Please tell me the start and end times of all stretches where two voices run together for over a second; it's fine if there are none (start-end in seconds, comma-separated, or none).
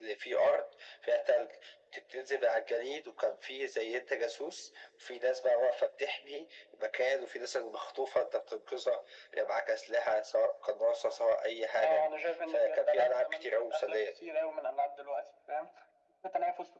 12.5-14.1